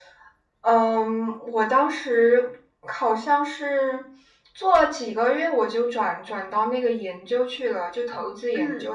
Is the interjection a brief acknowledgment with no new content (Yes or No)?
Yes